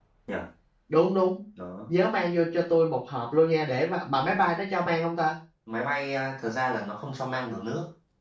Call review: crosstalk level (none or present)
none